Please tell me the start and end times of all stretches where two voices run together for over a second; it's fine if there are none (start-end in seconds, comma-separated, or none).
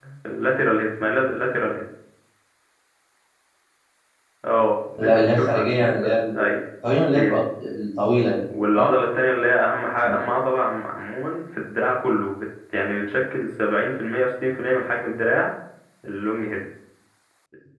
5.0-6.5